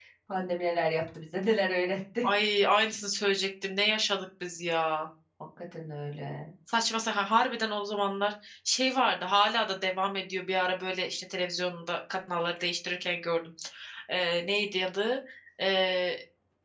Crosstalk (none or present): none